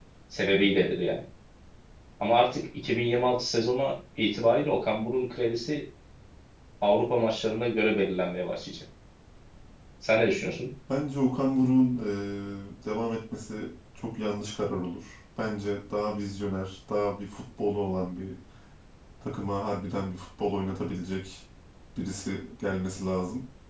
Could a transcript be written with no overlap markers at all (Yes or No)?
Yes